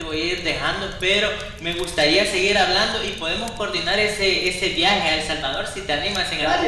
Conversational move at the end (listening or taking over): taking over